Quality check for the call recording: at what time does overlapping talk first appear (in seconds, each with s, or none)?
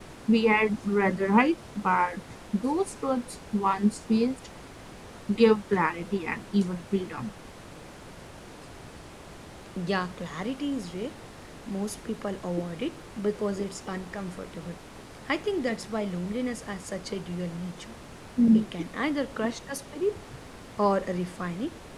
none